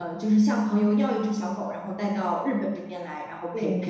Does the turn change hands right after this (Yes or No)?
No